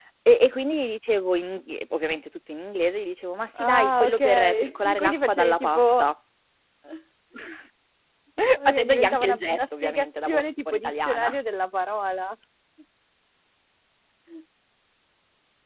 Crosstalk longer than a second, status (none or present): present